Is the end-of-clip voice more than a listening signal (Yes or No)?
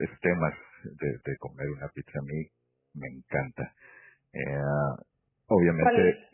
No